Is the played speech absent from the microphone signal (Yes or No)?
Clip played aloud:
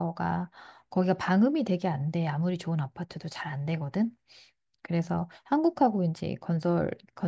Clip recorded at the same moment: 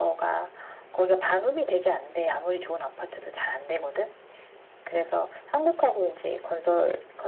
No